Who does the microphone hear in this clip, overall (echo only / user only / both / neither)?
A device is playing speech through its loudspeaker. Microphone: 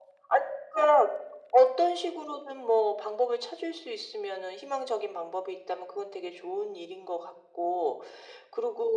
echo only